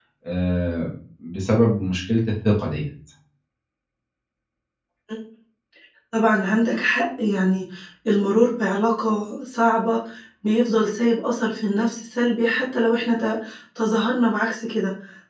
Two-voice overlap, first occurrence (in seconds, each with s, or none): none